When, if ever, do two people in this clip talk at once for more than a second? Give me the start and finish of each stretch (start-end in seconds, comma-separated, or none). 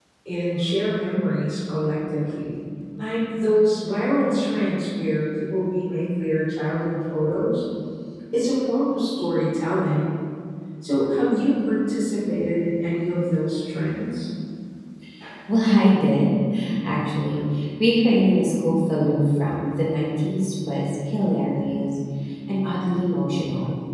none